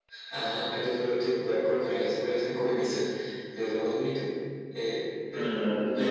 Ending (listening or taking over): taking over